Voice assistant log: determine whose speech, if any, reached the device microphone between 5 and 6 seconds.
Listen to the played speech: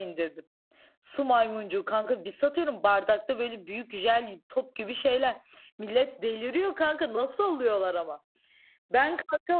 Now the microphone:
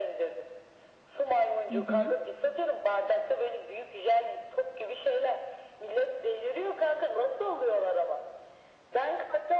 echo only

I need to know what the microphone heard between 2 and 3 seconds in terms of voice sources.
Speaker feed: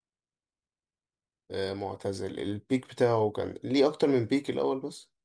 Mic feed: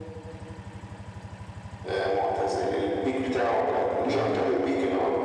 echo only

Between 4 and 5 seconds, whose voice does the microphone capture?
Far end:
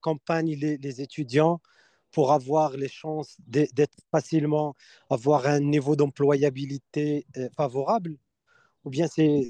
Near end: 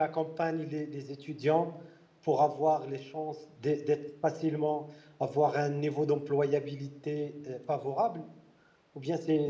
echo only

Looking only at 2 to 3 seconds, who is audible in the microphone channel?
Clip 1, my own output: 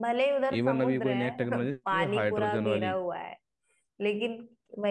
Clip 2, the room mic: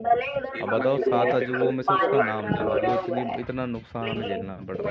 both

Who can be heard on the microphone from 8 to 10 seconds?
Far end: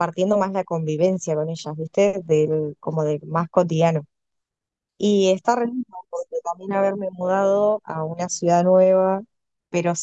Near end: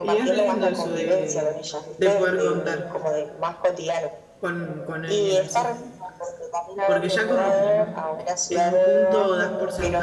both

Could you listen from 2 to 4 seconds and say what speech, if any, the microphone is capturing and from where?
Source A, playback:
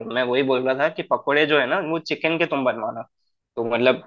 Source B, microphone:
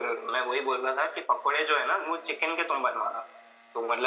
echo only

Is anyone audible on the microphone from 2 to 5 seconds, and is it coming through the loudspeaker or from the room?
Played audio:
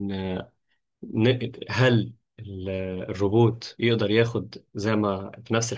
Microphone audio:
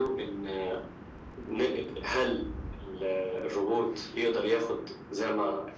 echo only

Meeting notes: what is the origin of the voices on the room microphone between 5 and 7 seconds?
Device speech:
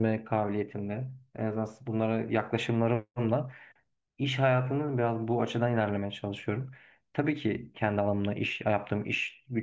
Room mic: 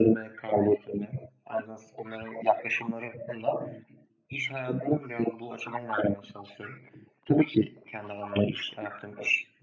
echo only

